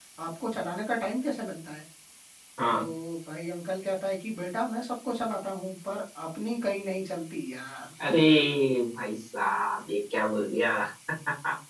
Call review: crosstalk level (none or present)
none